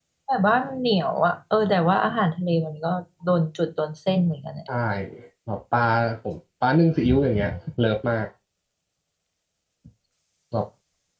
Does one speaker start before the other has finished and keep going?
No

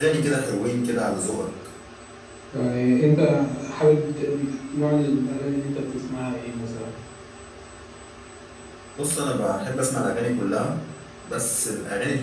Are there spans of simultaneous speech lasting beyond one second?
No

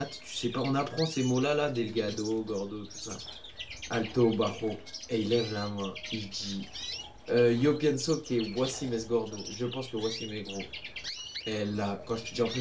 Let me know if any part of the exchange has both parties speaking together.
No

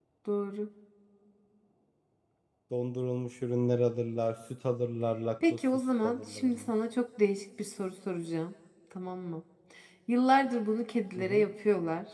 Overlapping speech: Yes, from 5.5 s

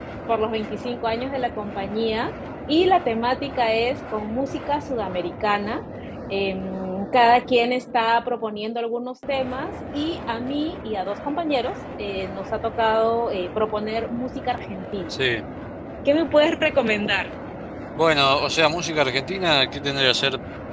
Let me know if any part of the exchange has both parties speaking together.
No

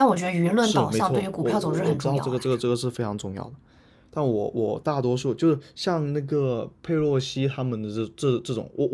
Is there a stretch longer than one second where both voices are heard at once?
Yes, from 0.6 s

